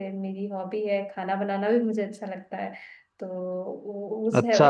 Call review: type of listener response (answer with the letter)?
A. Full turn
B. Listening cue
A